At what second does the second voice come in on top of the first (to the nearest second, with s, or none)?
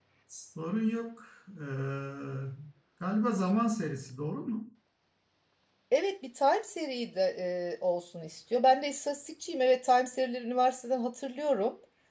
none